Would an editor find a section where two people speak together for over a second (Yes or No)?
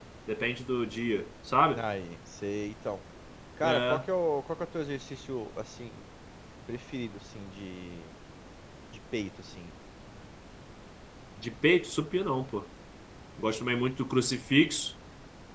No